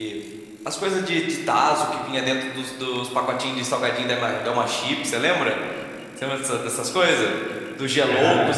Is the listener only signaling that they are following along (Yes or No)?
Yes